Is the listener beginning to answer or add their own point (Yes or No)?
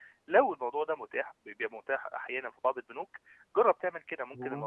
No